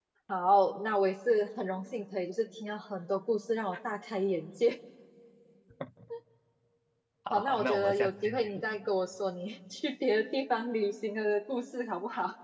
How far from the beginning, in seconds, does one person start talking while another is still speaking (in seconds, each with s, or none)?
7.3 s